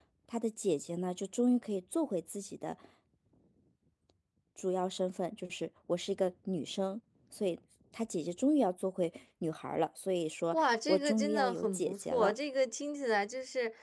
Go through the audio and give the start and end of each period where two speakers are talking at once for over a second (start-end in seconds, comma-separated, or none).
10.5-12.3